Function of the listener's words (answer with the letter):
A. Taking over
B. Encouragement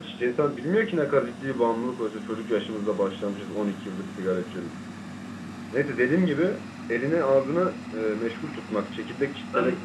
B